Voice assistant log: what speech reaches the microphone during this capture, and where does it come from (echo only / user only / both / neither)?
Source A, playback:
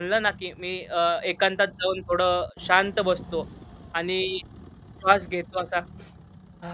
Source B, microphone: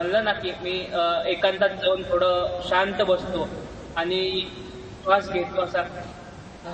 echo only